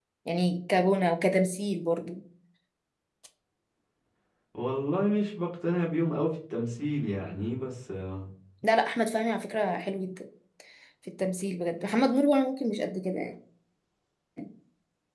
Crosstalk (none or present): none